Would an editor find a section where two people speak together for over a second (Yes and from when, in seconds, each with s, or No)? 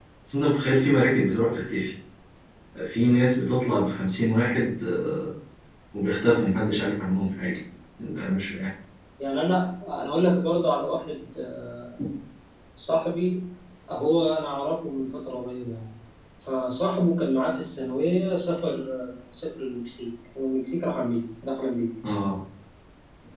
No